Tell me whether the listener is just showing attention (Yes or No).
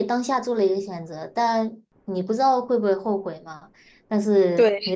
Yes